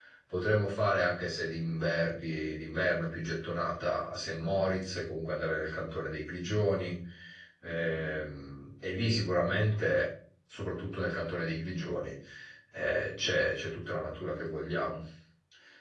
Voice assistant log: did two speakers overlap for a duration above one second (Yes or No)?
No